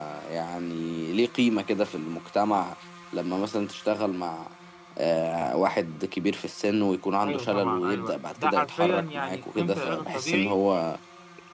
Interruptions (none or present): present